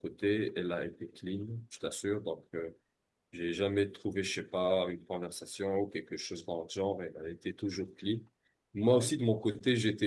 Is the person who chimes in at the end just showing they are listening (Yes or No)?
Yes